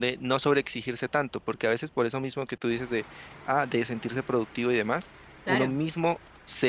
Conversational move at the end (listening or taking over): listening